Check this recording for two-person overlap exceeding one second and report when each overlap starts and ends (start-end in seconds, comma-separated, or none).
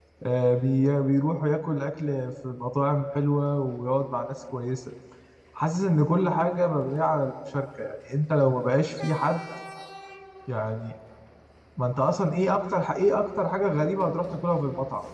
none